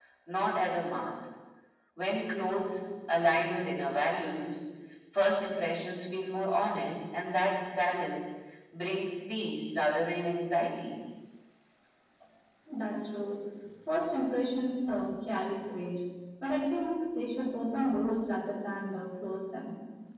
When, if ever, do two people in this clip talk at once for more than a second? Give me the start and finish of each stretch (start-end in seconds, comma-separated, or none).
none